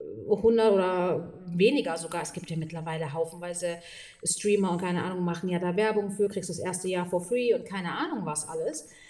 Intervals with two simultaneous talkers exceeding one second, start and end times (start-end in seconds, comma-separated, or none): none